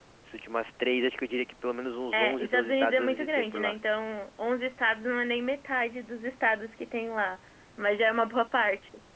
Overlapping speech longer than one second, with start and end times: 2.1-3.7

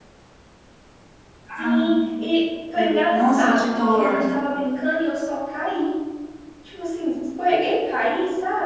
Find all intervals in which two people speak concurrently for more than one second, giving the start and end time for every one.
2.8-4.2

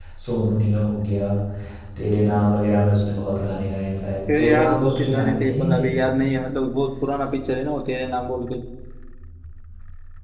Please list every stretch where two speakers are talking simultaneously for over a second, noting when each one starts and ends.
4.4-5.9

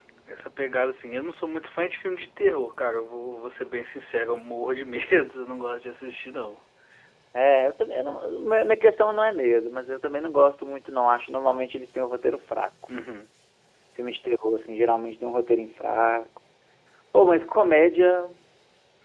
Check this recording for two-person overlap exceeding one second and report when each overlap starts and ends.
none

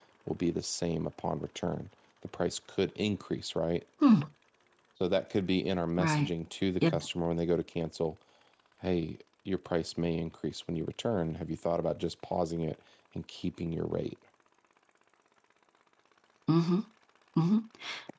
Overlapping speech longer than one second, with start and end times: none

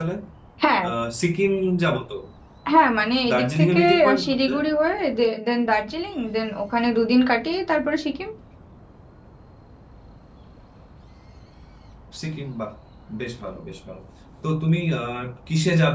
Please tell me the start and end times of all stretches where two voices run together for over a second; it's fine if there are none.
3.3-4.5

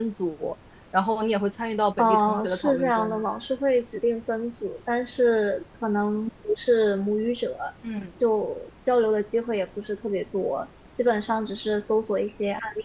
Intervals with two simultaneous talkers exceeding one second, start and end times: 2.0-3.2

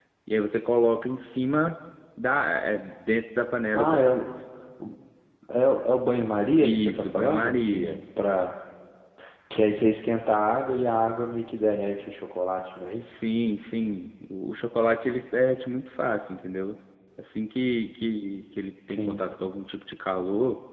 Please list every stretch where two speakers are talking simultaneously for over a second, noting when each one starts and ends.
6.6-8.0

